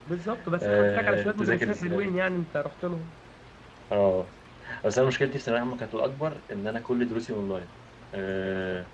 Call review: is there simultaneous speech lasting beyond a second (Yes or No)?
Yes